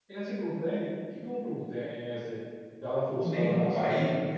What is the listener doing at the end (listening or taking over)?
taking over